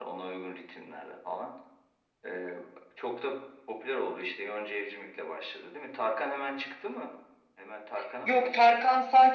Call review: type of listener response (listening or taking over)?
taking over